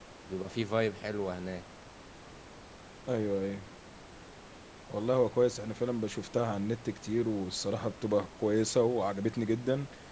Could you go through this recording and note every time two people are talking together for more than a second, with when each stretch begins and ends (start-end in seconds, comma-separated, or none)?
none